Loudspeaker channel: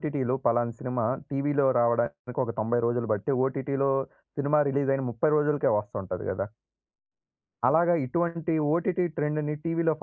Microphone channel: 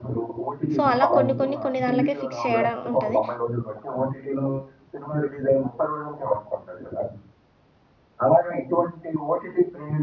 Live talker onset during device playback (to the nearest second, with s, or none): 1 s